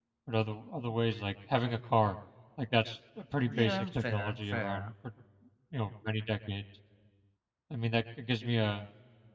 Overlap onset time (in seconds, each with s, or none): 3.5 s